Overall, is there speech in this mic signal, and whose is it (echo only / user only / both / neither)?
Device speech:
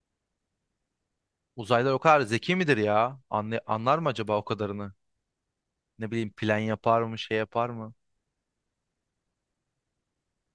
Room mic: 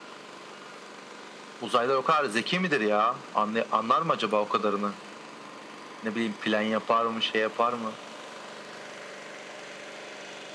echo only